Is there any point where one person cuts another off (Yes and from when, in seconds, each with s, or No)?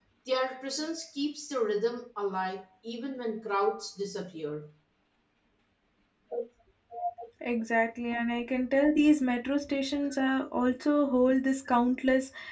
No